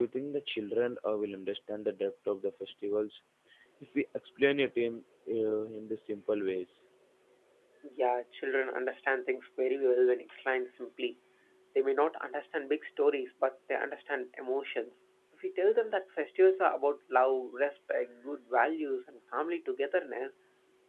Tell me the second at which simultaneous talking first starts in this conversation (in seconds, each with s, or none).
none